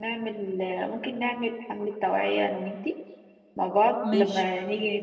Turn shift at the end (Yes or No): No